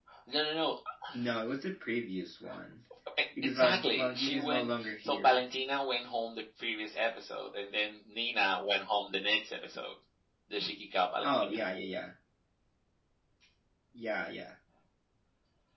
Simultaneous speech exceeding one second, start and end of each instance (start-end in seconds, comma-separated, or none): 3.5-5.5